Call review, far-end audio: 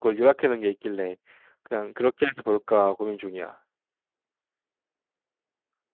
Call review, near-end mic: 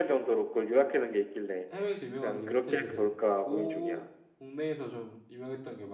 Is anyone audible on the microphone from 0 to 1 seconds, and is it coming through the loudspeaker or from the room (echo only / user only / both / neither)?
echo only